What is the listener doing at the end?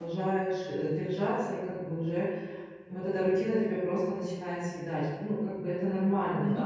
listening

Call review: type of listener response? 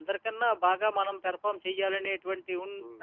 listening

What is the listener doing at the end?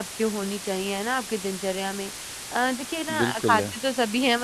listening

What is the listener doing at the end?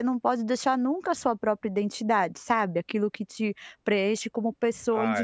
taking over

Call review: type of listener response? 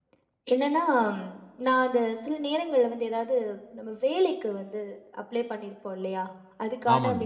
listening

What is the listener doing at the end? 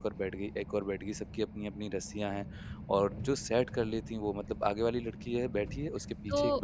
taking over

